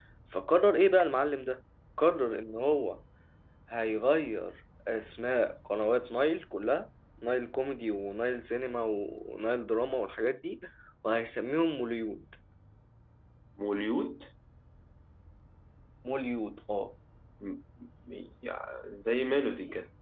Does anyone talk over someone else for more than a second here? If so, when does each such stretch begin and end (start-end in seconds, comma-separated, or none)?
none